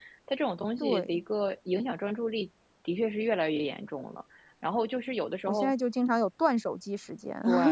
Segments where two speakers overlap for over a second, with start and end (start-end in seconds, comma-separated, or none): none